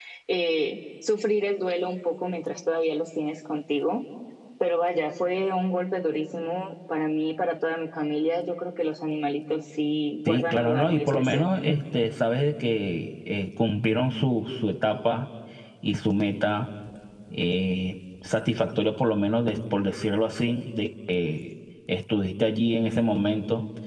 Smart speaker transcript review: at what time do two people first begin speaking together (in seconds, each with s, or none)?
10.2 s